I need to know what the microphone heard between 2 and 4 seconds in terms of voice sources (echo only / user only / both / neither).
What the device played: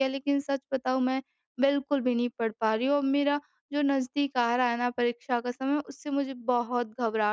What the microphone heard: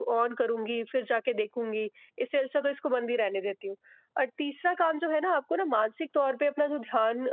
user only